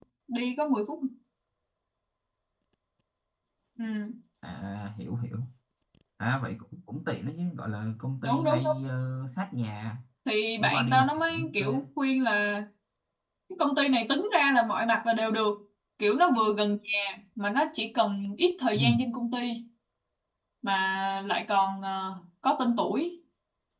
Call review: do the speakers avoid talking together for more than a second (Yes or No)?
No